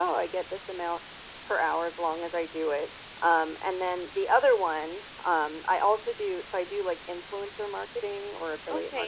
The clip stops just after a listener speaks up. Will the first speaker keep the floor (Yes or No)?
No